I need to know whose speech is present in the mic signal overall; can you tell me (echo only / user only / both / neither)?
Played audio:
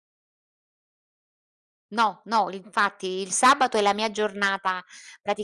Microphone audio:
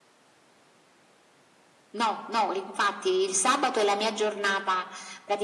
echo only